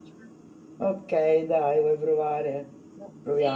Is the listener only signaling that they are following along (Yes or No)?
No